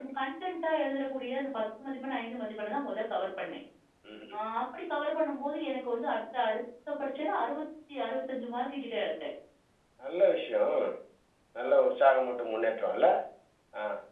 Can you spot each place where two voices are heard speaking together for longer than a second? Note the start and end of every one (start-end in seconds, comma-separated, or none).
none